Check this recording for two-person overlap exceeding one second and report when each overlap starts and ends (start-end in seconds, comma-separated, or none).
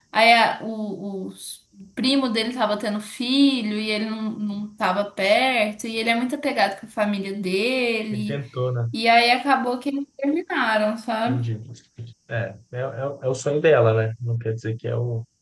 none